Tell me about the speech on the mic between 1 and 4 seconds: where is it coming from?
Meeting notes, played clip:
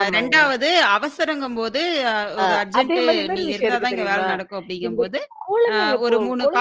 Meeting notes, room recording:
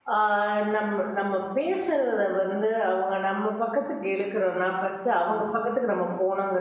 user only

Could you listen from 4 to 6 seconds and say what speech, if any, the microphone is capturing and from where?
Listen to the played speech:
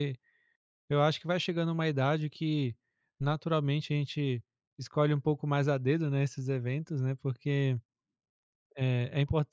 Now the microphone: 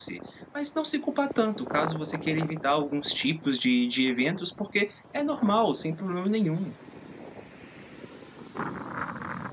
user only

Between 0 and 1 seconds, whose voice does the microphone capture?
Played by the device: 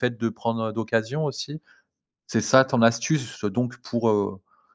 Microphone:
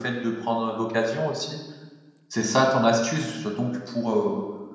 echo only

